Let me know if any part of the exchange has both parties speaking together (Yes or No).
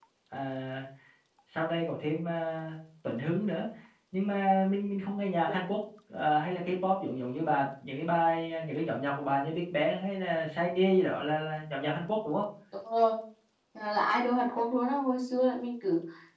No